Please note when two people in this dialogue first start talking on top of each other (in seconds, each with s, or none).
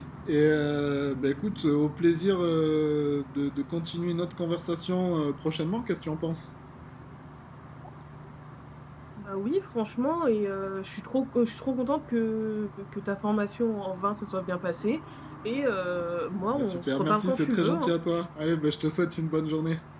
16.5 s